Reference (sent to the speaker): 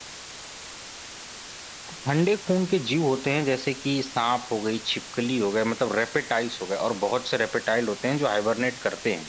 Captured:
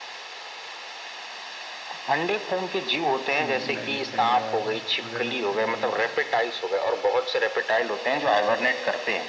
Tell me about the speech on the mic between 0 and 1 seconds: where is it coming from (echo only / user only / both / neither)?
neither